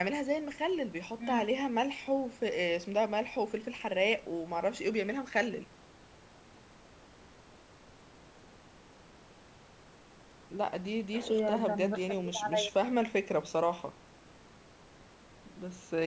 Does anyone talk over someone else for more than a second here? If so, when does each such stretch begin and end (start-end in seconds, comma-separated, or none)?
11.3-12.7